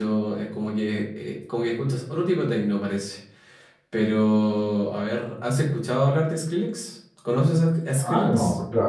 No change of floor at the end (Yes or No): No